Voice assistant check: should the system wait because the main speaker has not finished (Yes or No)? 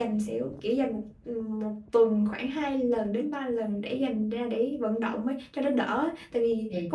Yes